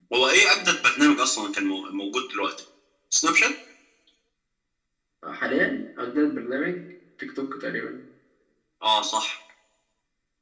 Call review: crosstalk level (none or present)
none